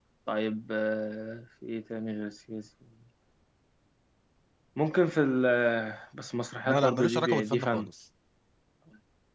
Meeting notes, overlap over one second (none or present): present